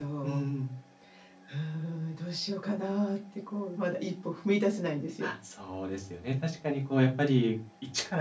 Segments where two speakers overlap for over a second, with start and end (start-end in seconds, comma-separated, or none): none